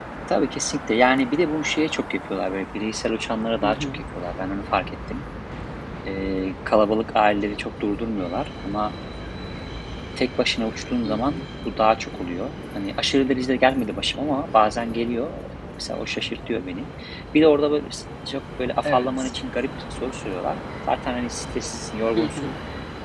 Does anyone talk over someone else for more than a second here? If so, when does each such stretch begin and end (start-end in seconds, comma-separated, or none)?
none